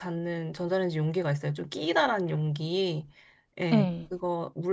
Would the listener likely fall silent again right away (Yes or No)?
Yes